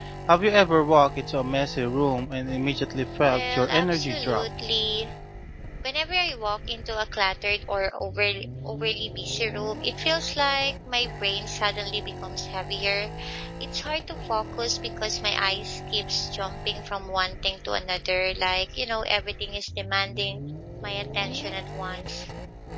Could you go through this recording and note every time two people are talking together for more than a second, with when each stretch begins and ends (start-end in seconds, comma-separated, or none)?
3.2-4.4